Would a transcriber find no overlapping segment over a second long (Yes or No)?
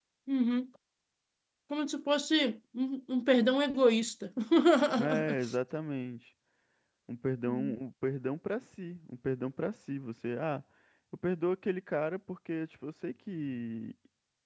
Yes